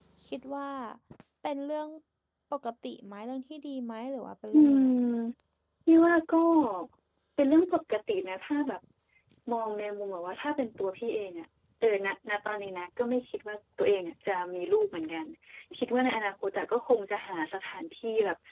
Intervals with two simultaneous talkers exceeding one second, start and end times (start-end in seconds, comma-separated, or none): none